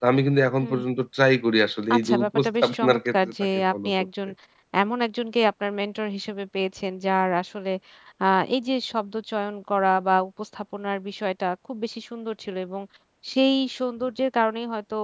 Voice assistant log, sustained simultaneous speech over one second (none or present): present